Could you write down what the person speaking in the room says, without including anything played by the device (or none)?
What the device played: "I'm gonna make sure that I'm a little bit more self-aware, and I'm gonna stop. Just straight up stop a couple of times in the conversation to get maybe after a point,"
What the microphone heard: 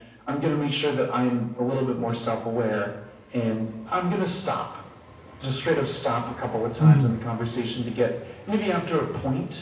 Mhm.